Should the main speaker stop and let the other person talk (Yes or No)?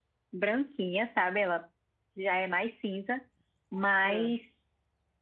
No